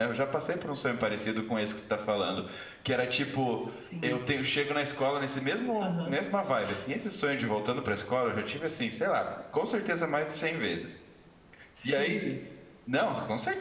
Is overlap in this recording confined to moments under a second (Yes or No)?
Yes